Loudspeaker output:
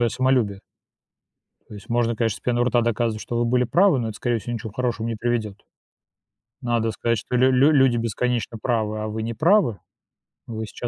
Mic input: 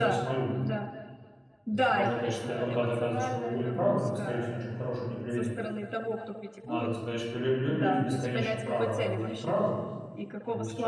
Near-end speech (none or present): present